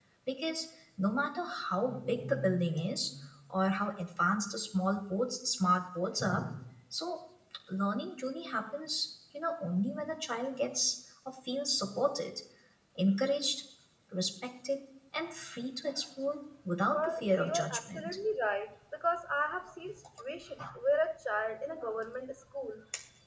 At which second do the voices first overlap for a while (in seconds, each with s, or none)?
16.9 s